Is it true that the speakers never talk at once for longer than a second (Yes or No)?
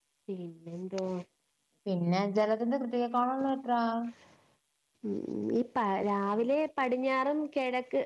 Yes